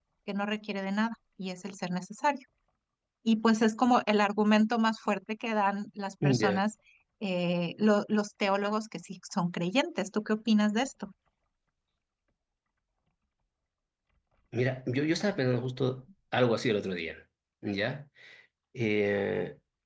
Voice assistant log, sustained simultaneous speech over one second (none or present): none